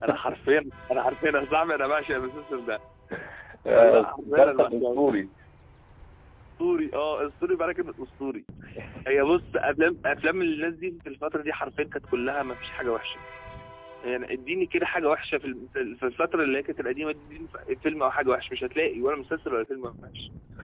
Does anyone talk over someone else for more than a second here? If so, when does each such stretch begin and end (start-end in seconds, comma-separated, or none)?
3.7-5.2